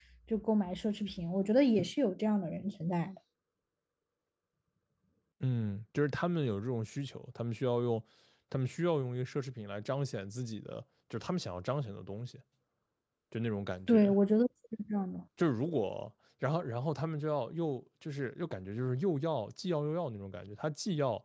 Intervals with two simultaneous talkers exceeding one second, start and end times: none

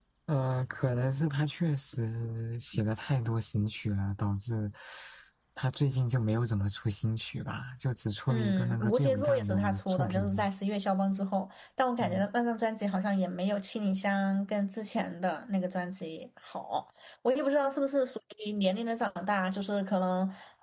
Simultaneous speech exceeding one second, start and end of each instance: 8.3-10.5

